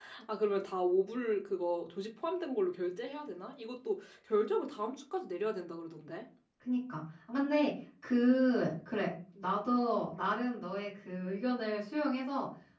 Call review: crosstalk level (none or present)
none